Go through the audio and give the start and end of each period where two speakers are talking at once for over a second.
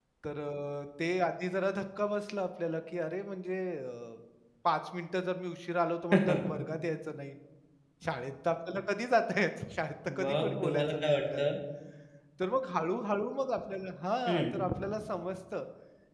10.2-11.5

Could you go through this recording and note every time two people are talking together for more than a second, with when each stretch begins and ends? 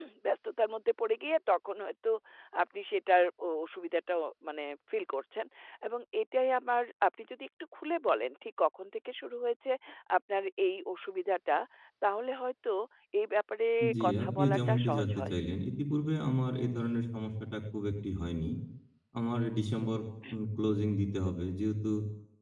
14.1-15.3

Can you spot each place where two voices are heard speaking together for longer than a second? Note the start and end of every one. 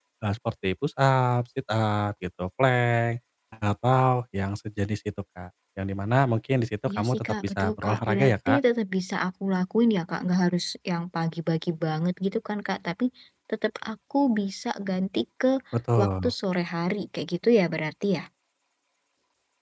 6.9-8.6

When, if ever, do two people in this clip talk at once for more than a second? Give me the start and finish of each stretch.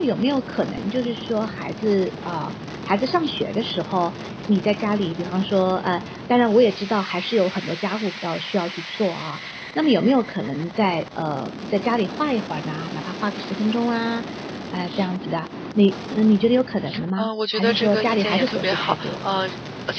17.2-19.2

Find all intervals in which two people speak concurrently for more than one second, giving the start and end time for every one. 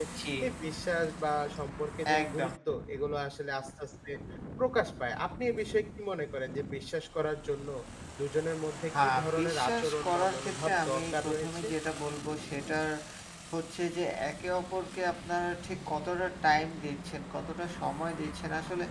9.0-11.7

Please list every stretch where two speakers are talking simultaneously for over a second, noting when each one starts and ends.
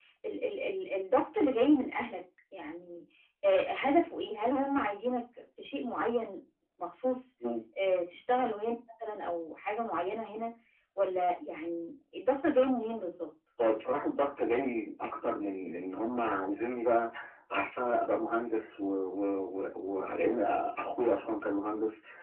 none

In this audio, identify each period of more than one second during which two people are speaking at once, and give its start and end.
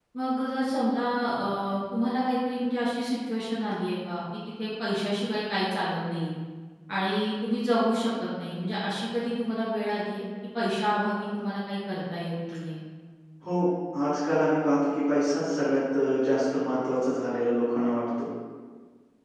none

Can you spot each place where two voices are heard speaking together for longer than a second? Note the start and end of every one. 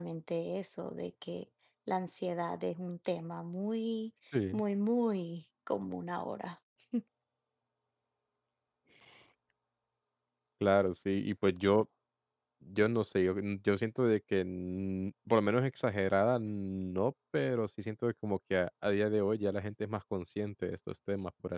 none

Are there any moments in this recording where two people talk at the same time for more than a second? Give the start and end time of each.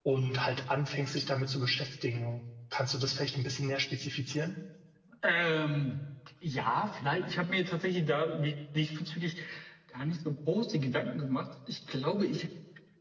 none

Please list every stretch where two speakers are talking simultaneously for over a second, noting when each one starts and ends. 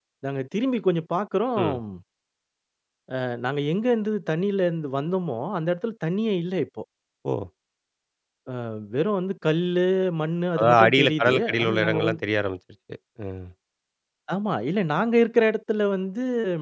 10.6-12.0

